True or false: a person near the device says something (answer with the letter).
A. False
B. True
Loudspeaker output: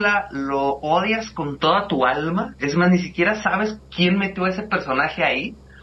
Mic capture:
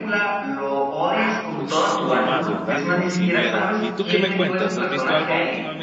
B